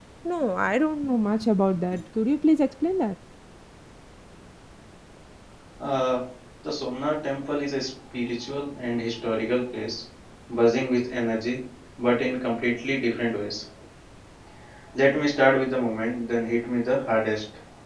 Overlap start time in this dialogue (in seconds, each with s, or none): none